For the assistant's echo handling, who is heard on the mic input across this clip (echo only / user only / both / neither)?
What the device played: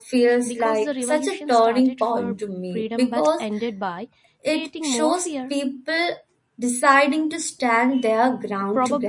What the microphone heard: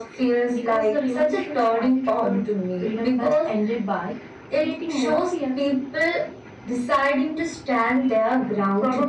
echo only